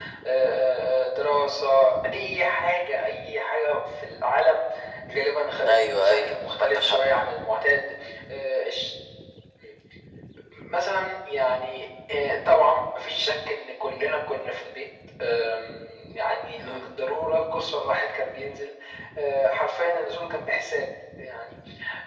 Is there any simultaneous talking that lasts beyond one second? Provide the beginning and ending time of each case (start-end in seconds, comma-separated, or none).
5.7-7.0